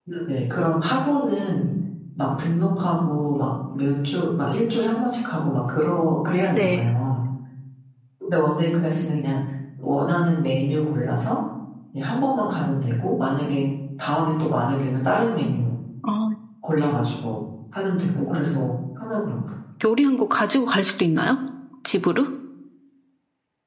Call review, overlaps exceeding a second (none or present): none